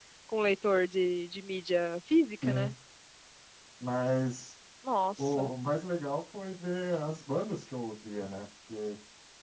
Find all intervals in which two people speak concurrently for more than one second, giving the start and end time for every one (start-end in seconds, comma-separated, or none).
none